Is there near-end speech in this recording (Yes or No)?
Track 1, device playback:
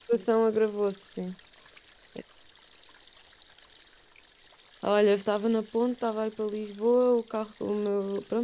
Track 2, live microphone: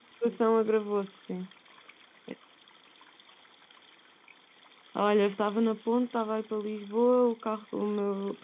No